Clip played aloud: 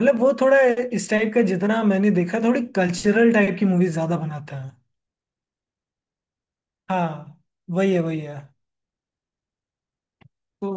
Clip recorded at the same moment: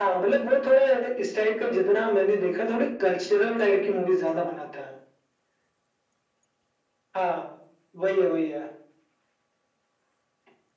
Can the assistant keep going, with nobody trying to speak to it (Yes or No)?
Yes